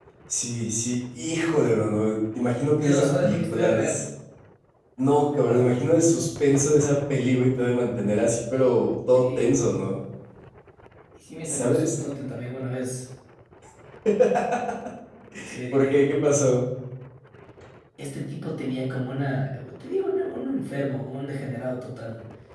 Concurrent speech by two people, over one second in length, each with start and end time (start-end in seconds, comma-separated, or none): 2.8-4.0